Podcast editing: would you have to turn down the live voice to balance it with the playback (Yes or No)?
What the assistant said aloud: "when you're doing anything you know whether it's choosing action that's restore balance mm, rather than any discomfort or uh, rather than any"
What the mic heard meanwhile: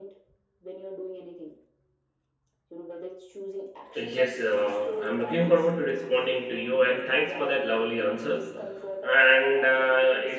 Yes